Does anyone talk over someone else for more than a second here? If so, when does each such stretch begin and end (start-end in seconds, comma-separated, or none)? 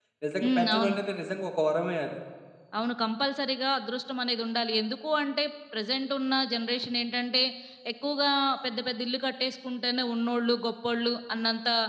none